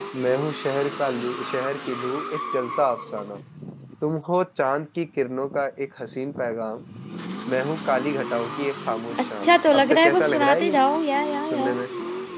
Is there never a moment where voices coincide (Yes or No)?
No